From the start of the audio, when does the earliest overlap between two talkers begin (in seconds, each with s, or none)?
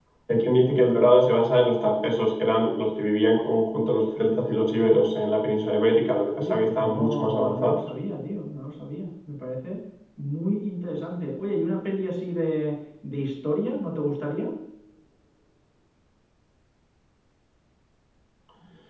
6.4 s